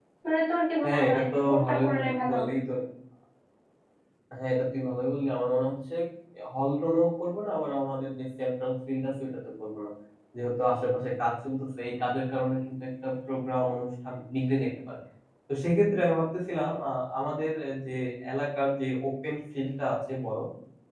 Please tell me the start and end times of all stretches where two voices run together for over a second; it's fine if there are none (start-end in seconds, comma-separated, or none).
0.8-2.5